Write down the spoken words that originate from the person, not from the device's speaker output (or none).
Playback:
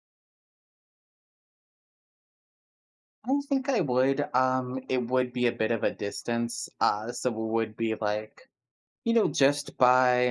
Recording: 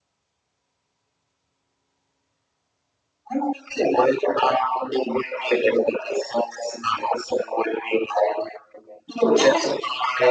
Okay,